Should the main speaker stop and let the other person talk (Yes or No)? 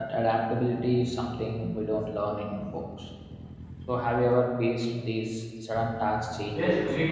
Yes